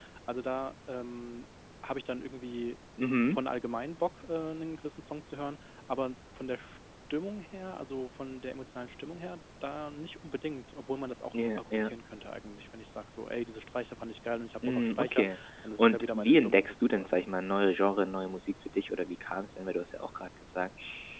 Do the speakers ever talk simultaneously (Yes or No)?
Yes